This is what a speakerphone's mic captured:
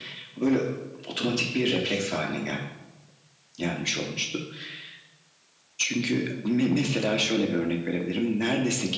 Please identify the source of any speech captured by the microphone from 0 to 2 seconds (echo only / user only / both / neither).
echo only